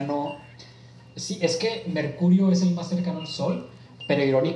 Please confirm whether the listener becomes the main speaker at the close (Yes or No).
No